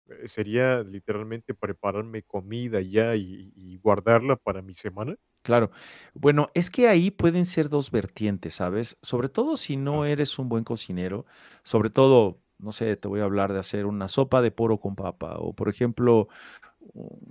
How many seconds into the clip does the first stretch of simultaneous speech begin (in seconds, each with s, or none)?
none